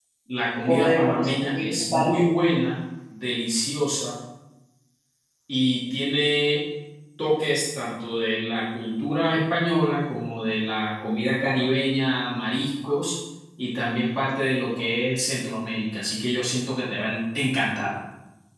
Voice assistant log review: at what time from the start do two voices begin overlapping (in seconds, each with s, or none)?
0.7 s